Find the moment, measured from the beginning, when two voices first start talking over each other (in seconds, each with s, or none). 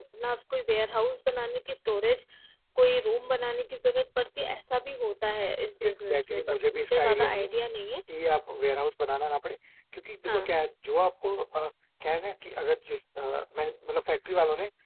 5.8 s